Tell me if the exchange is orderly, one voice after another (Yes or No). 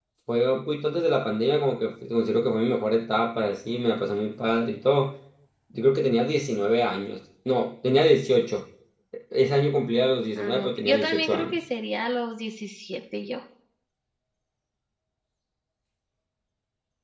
No